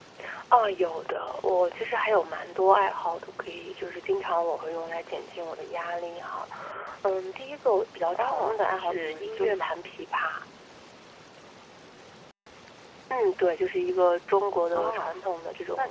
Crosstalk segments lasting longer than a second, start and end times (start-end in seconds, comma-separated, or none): 8.2-9.7